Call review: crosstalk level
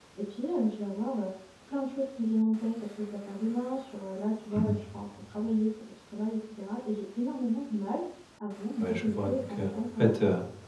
present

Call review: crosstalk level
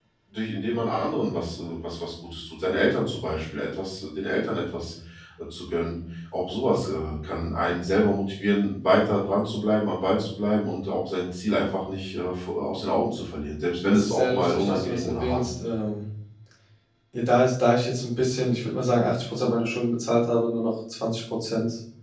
present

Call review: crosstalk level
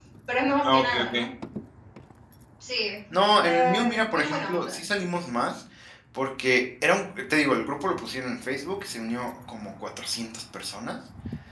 present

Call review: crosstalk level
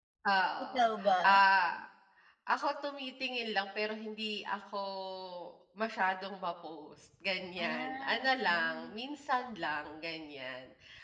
present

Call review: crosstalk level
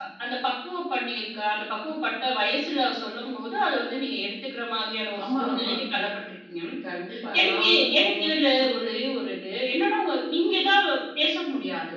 present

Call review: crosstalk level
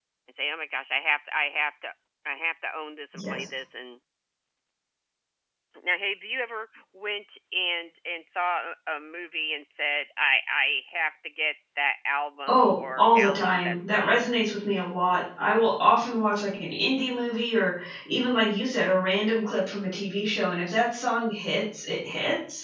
present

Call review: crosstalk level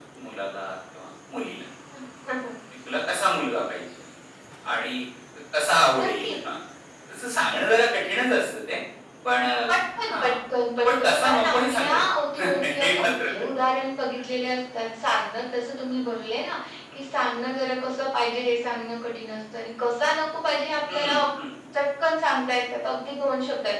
present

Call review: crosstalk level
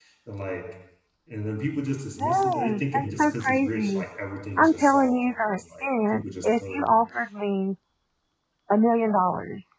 present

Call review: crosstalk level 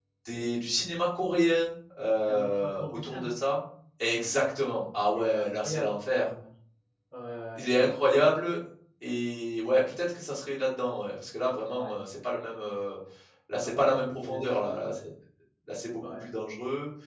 present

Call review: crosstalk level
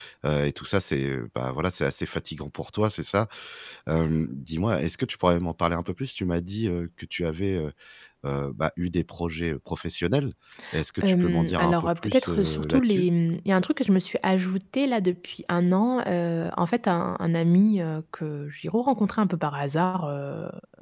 present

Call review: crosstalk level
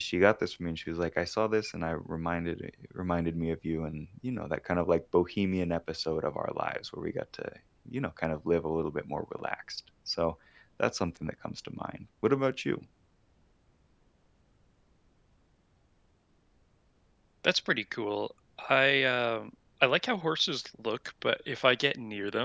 none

